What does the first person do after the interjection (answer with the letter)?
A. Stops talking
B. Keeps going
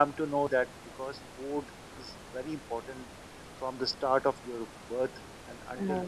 B